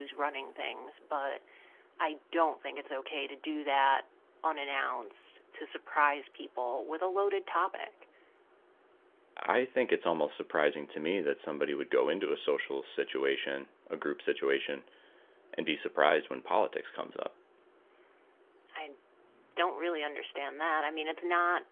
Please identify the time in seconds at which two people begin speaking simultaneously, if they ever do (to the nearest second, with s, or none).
none